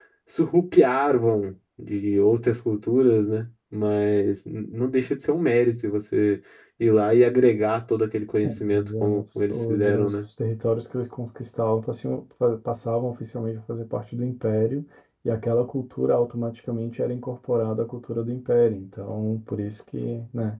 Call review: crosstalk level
present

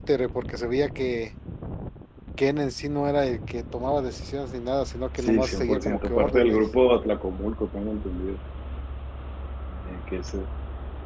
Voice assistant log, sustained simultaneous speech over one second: present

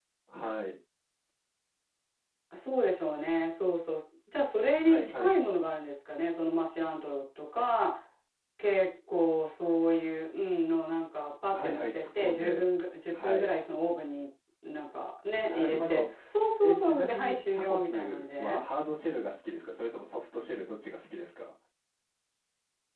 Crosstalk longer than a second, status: present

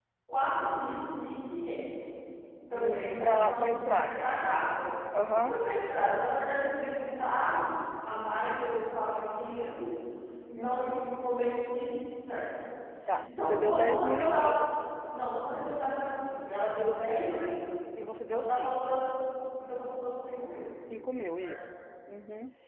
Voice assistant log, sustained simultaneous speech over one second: present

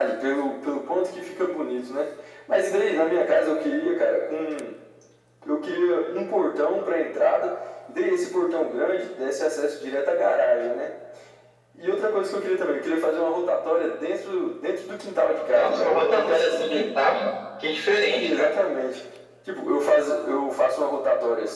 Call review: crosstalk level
present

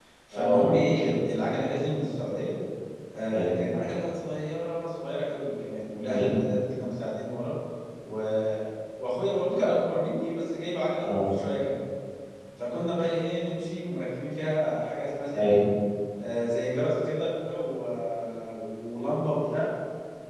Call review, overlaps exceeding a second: none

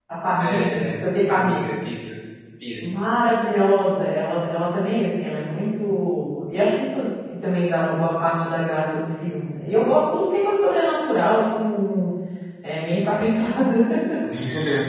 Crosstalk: present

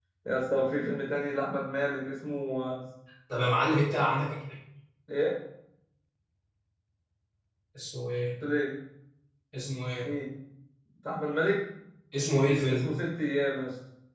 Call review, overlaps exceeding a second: none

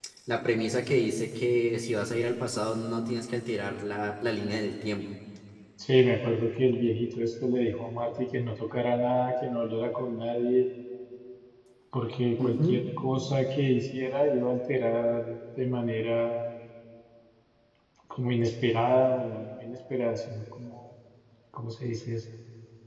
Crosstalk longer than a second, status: none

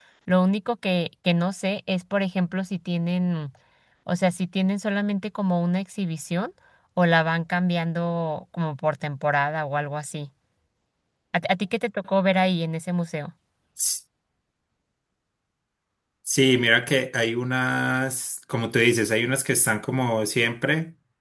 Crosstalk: none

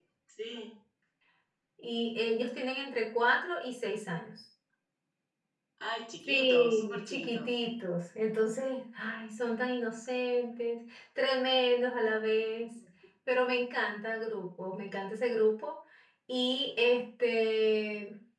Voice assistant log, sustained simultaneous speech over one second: present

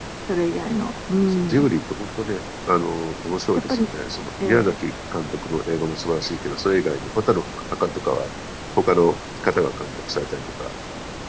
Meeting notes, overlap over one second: none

